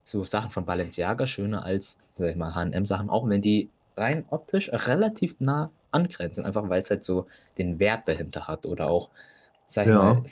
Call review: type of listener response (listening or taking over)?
listening